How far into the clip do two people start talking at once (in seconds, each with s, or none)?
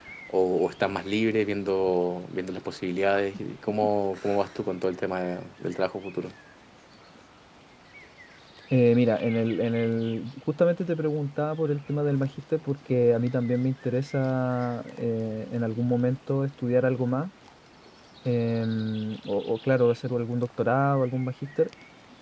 none